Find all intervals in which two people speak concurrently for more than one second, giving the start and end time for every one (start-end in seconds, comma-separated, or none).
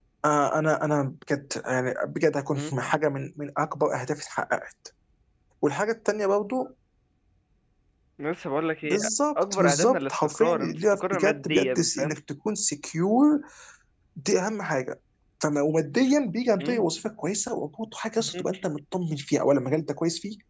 9.4-12.2